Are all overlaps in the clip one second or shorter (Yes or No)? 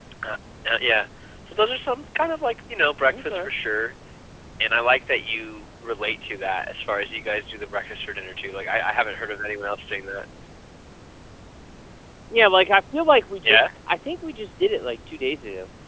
Yes